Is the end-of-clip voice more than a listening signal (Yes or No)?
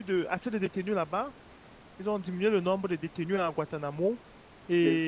No